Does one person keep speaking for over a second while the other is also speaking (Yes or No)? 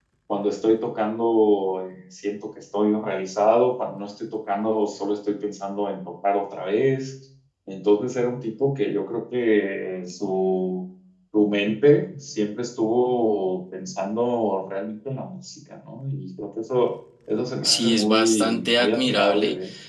Yes